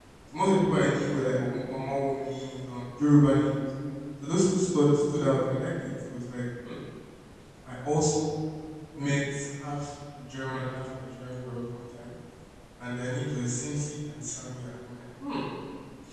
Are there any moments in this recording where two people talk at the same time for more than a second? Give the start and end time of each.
none

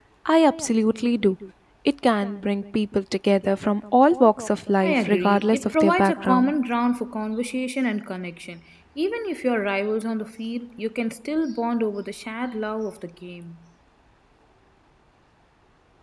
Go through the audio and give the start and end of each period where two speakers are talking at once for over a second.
4.8-6.5

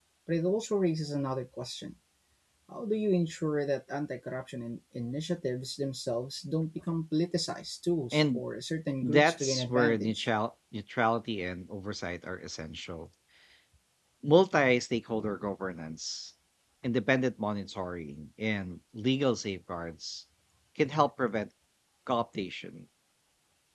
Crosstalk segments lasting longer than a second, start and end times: 9.0-10.3

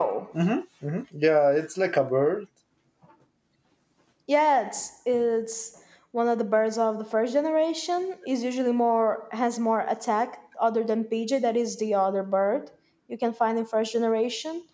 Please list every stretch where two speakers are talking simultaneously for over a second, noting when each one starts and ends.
none

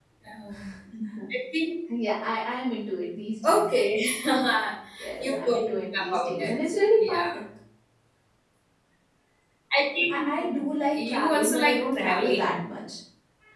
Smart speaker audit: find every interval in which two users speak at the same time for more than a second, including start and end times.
5.2-6.5, 10.9-12.6

